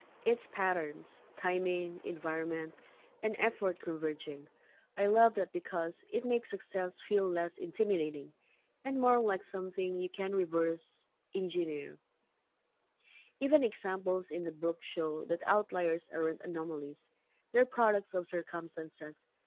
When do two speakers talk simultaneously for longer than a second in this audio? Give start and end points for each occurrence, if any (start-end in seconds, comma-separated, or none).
none